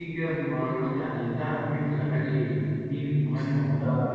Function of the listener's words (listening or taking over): taking over